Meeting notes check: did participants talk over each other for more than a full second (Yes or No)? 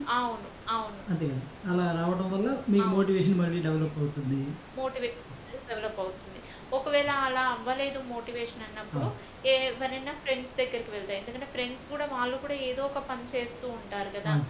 No